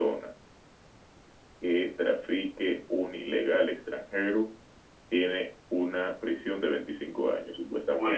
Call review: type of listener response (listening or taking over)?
taking over